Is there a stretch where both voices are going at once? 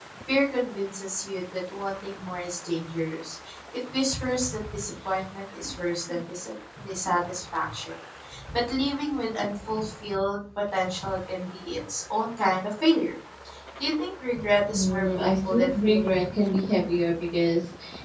Yes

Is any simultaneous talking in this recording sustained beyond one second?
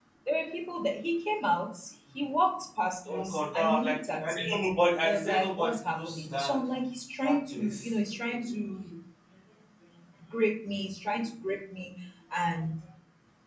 Yes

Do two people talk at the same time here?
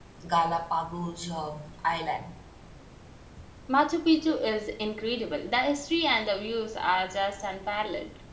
No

